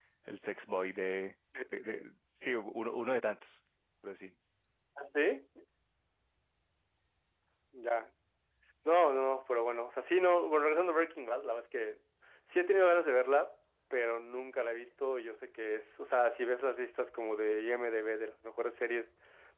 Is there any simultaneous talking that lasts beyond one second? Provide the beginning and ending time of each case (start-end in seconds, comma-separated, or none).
none